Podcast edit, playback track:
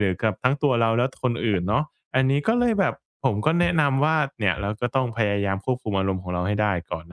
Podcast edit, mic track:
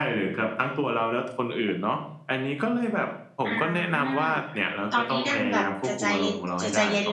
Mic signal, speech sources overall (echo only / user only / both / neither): both